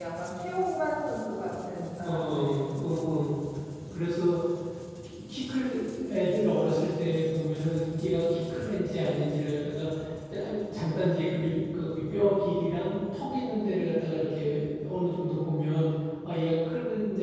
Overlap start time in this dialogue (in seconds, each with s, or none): 2.0 s